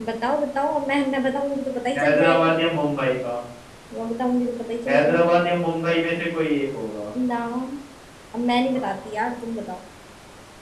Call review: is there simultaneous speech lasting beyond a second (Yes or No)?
No